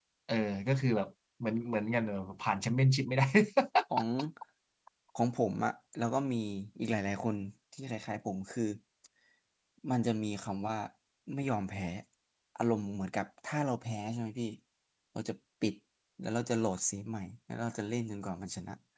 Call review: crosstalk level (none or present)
none